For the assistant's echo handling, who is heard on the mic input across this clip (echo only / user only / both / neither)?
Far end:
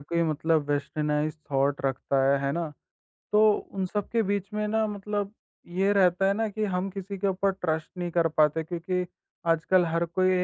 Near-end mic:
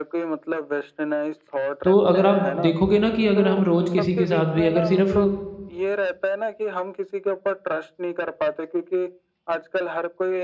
both